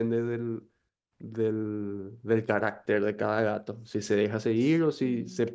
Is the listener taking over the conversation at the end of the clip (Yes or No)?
No